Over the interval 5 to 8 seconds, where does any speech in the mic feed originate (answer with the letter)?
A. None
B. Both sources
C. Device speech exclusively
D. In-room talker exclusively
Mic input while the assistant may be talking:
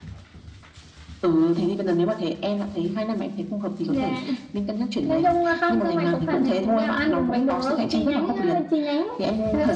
C